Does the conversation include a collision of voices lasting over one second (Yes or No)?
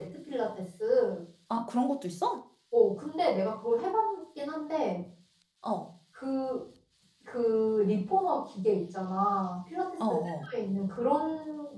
No